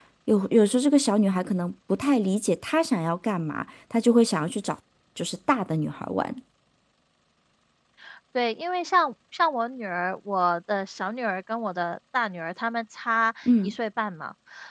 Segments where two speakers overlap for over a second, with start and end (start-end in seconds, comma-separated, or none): none